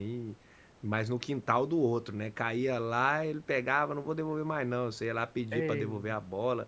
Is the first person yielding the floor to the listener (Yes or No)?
No